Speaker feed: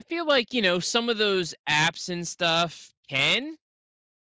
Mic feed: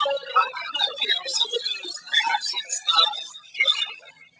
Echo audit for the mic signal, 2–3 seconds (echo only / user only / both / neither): echo only